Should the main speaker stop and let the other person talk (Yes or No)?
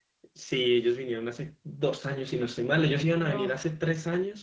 No